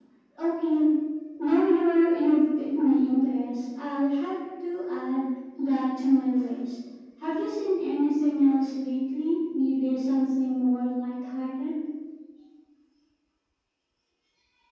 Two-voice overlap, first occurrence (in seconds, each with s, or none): none